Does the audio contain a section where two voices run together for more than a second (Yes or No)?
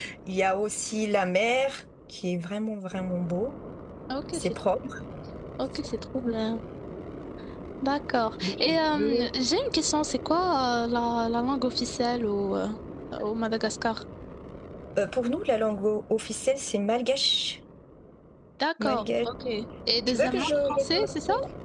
Yes